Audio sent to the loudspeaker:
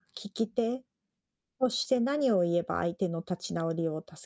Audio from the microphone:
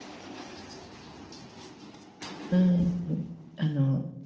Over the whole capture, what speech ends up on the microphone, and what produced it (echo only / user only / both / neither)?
user only